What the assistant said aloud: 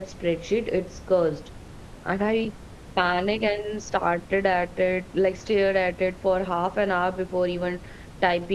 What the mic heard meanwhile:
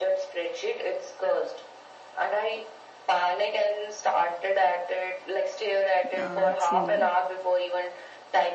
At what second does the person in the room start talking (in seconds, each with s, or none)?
6.1 s